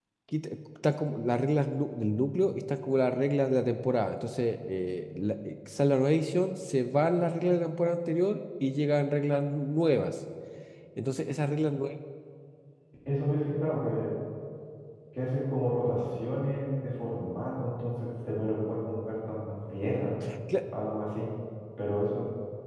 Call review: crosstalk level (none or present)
none